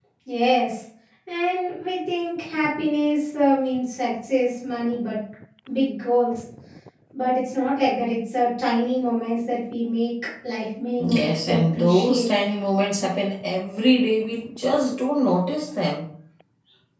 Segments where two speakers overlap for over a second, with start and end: 11.0-12.3

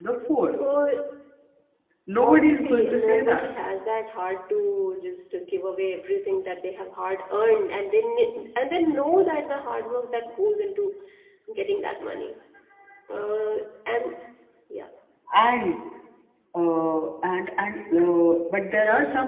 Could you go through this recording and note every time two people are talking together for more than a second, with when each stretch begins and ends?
2.2-3.5

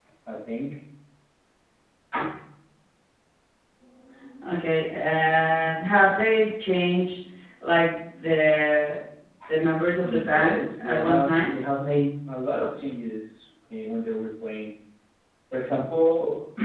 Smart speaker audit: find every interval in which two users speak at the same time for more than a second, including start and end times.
10.0-11.5

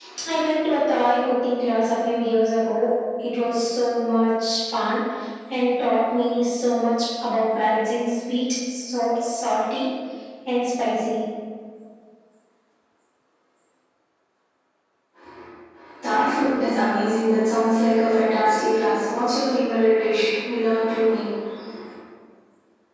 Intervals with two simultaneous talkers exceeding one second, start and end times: none

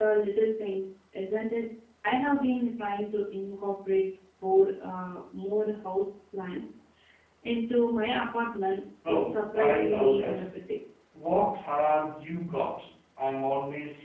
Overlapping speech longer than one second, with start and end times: 9.1-10.4

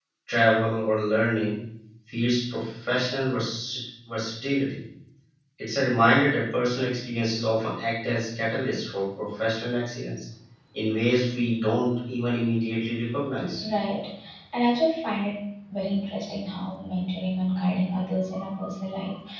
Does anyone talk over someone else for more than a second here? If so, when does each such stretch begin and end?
none

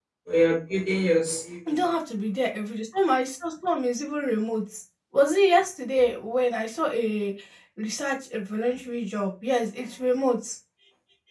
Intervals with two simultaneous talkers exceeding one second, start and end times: none

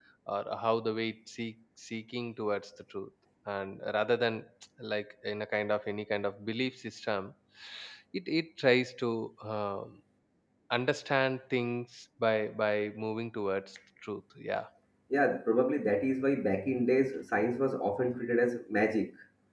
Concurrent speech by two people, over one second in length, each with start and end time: none

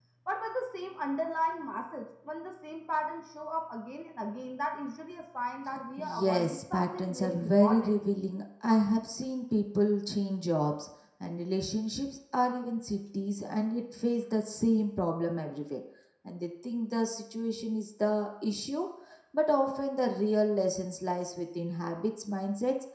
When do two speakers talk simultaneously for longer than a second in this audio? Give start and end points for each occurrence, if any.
6.0-7.9

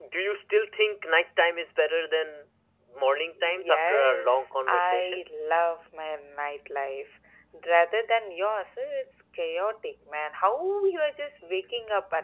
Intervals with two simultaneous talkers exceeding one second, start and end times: 3.3-5.2

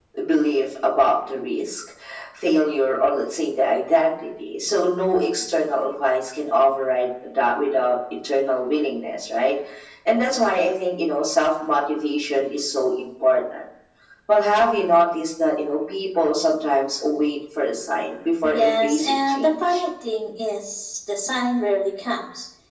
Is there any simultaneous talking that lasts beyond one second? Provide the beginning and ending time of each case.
18.4-19.8

